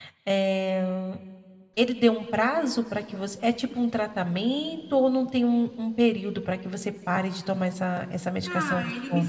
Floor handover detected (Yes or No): Yes